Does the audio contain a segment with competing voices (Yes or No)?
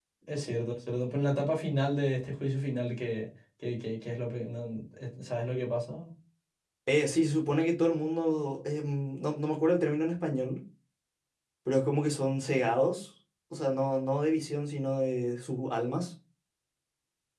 No